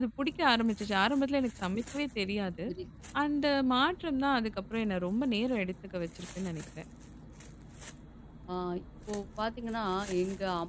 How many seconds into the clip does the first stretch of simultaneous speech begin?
none

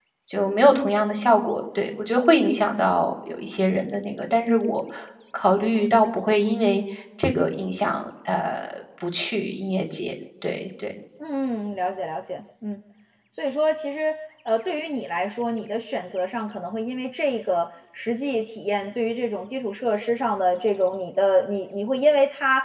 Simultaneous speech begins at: none

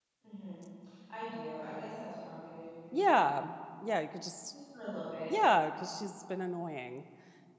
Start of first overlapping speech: none

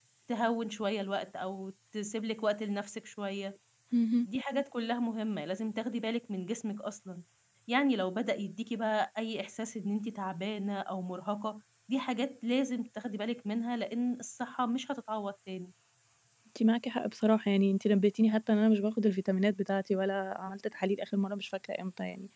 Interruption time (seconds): none

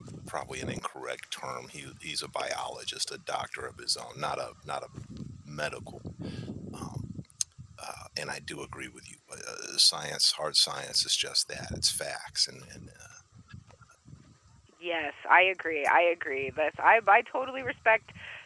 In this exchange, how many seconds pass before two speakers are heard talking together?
none

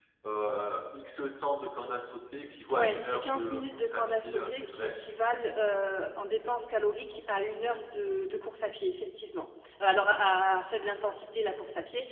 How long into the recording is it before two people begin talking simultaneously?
3 s

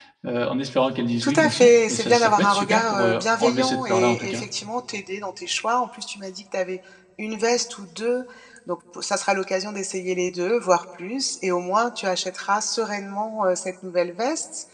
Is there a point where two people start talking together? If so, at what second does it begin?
1 s

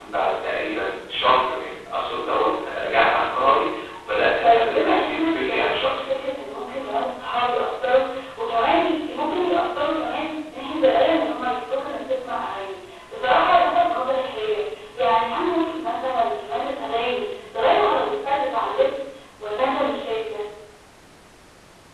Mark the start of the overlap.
4 s

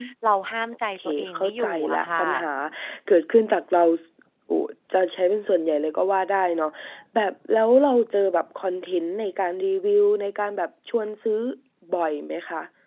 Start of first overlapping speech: 1 s

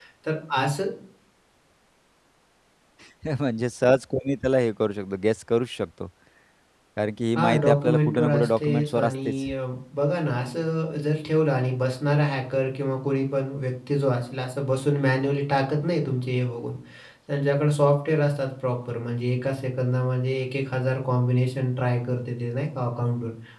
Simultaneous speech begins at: 7 s

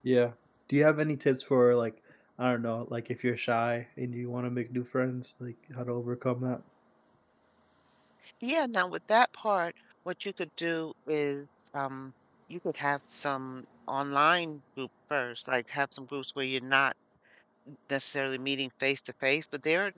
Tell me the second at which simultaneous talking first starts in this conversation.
none

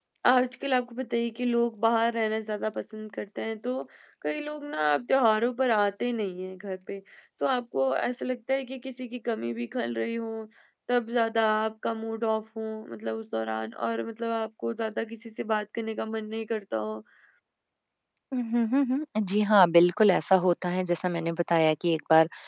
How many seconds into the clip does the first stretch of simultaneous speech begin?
none

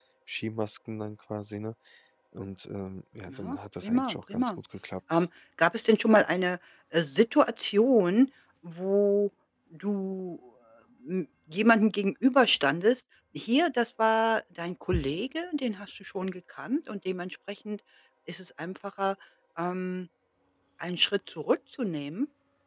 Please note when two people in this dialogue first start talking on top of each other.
3 s

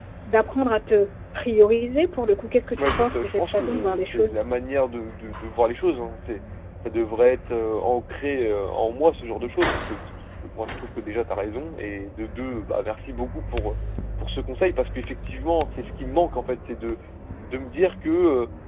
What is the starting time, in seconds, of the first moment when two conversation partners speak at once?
3 s

